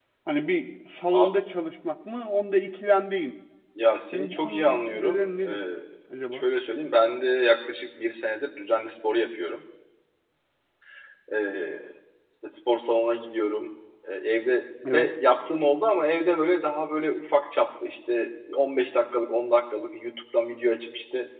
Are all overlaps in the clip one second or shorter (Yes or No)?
No